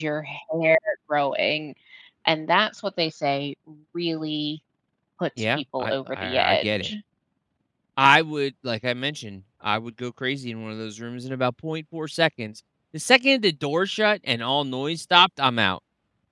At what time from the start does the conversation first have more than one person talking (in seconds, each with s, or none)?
5.5 s